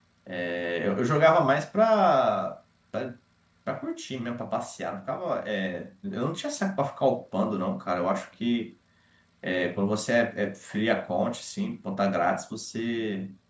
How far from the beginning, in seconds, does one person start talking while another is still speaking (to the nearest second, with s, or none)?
none